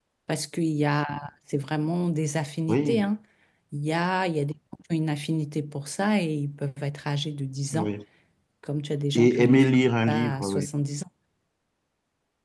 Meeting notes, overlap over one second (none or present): present